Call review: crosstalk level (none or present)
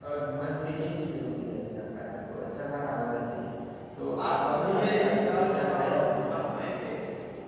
present